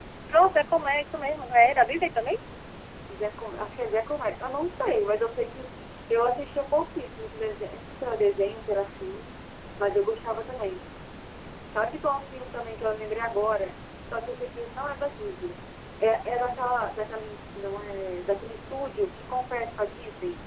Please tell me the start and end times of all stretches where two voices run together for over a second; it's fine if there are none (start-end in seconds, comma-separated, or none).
none